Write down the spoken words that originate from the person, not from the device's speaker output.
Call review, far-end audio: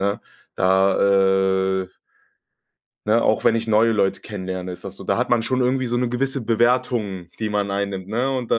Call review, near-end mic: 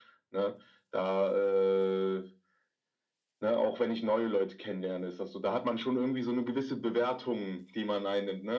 none

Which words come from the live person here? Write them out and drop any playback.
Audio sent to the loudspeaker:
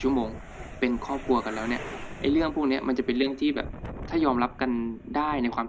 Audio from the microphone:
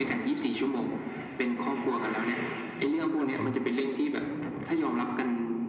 ครับผม

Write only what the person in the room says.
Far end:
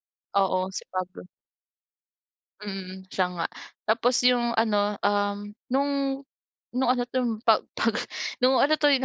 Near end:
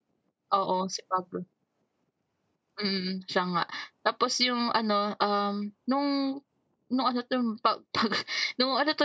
none

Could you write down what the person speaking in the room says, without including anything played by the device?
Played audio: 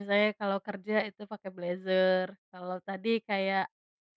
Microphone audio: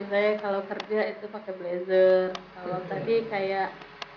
Betul.

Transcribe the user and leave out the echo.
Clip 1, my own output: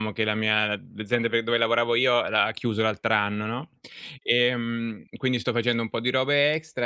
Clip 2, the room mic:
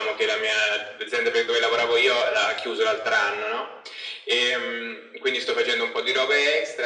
none

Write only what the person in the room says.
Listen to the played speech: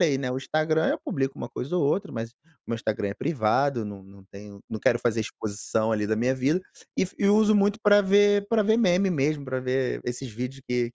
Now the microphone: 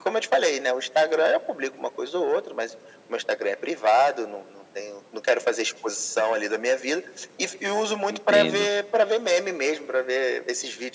Entendo.

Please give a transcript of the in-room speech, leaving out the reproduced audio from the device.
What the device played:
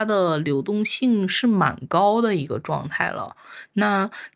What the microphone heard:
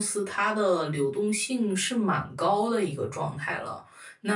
none

